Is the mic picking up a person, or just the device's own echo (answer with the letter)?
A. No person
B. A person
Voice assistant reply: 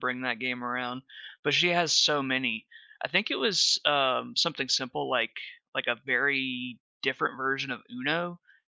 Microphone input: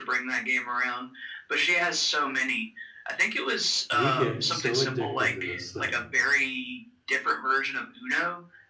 B